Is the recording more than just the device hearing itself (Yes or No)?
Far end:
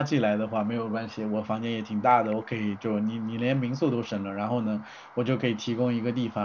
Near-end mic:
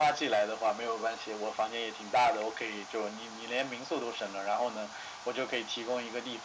No